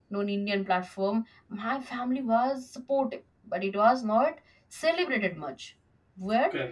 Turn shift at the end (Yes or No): No